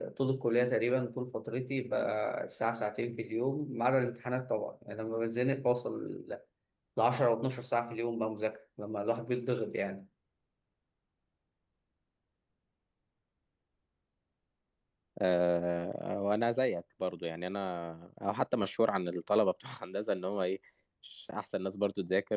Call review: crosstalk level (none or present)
none